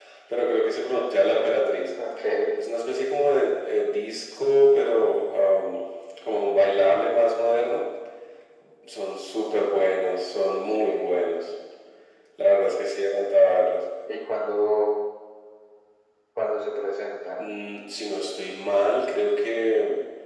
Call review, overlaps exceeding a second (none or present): none